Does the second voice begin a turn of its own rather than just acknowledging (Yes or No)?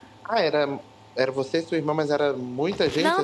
Yes